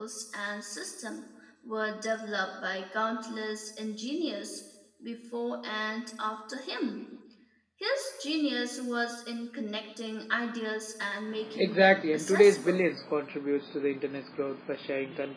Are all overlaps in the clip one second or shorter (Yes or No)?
No